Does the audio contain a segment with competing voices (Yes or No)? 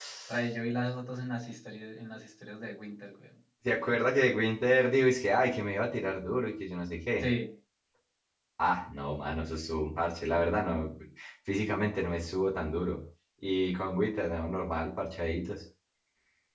No